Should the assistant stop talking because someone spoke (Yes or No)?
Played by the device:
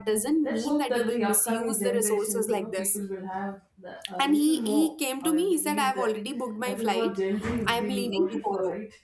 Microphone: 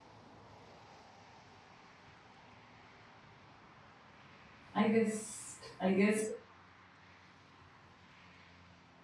Yes